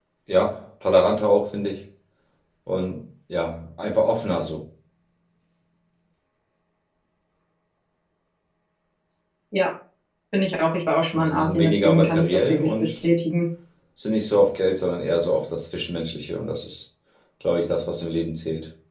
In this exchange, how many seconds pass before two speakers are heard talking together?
11.1 s

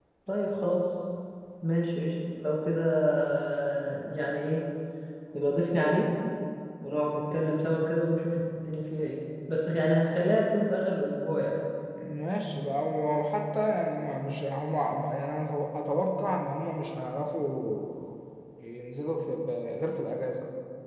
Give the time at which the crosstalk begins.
none

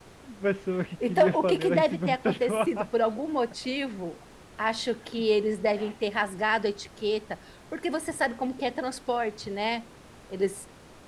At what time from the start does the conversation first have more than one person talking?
1.1 s

